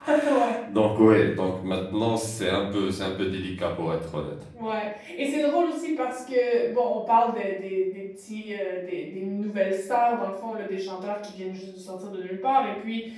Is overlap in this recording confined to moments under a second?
Yes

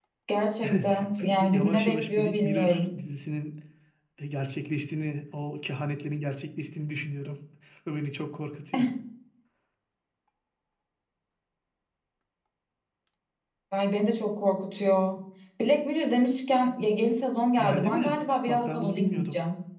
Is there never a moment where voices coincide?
No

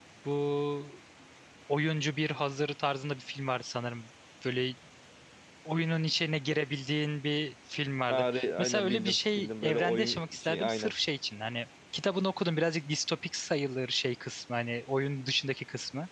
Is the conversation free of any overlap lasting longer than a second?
No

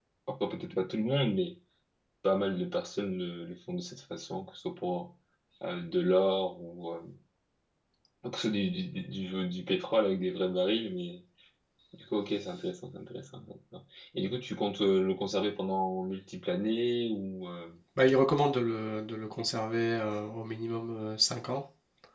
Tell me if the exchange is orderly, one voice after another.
Yes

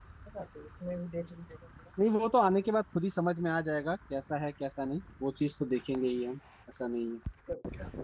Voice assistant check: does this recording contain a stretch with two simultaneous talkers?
No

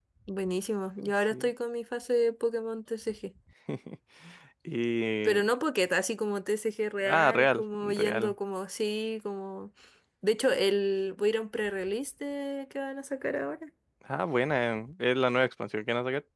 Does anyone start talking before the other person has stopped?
Yes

